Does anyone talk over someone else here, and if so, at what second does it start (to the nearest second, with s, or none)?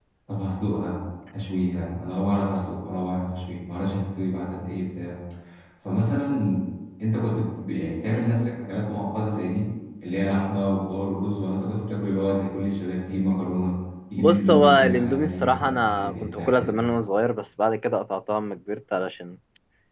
14 s